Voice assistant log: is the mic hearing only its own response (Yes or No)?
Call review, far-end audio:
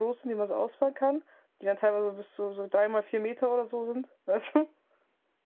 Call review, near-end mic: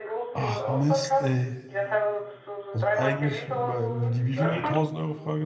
No